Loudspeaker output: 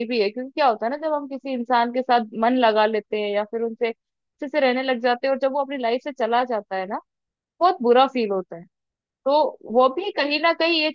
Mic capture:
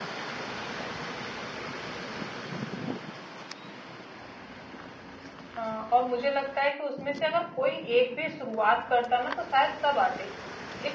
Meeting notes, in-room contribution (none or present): present